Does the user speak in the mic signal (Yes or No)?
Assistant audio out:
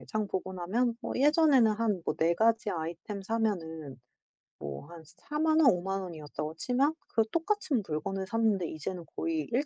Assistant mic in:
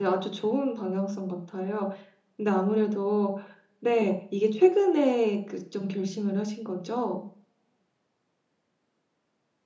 Yes